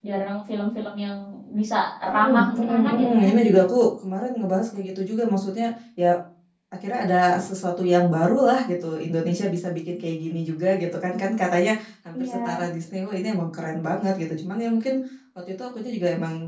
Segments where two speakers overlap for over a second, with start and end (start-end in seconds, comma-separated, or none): 2.1-3.3